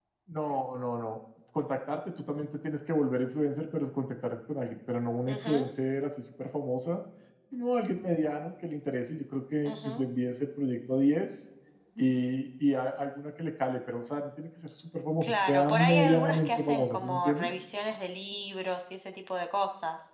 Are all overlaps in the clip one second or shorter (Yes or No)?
No